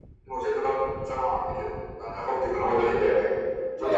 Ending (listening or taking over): listening